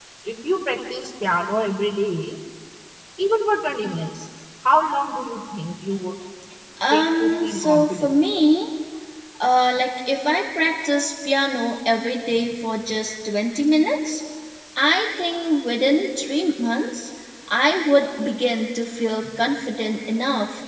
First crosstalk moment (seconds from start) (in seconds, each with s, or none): 6.9 s